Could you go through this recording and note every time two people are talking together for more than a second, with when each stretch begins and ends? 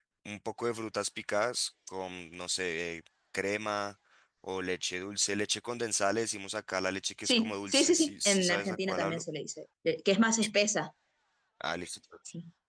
7.2-9.2

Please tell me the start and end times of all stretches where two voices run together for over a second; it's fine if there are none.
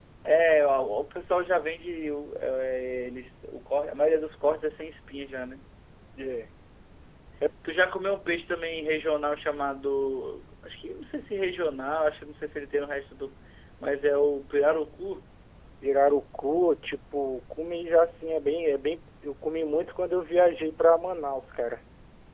none

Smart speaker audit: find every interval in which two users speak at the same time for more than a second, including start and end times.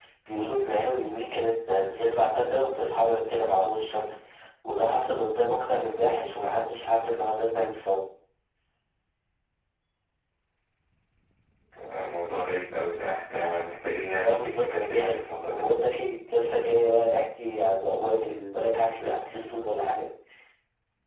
14.2-15.7

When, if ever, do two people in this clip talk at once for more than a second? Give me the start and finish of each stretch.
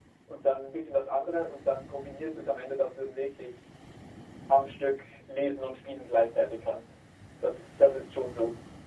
none

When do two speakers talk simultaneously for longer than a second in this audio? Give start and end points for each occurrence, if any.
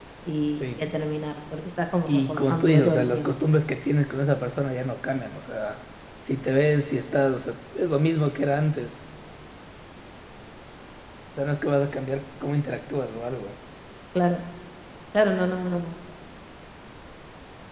2.1-3.4

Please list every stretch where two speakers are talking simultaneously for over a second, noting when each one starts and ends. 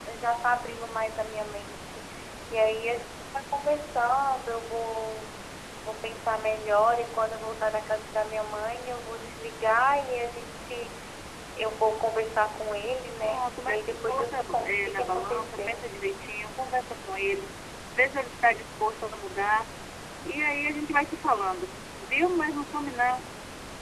13.2-15.9

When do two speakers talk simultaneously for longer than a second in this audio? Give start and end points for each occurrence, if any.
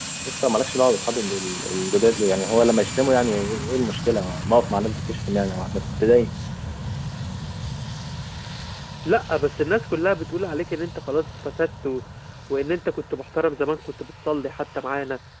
none

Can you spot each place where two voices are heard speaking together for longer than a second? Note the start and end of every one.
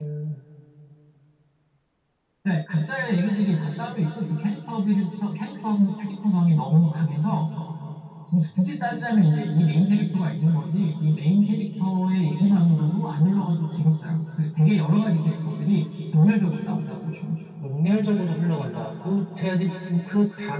none

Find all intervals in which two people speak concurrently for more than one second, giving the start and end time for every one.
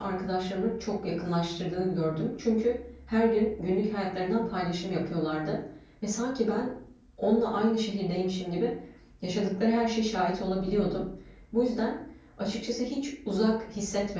none

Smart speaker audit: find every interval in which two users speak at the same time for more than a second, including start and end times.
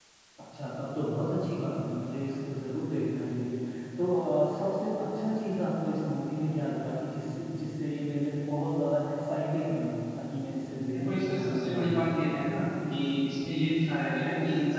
10.9-12.4

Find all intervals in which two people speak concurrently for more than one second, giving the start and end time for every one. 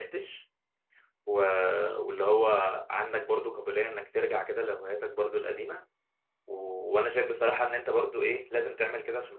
none

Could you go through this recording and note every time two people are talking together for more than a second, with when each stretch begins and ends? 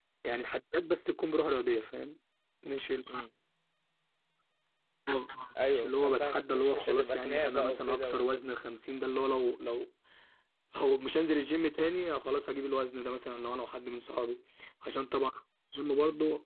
5.7-8.3

